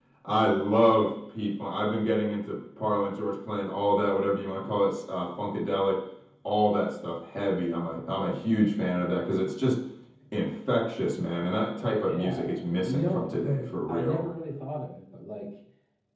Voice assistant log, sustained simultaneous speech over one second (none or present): present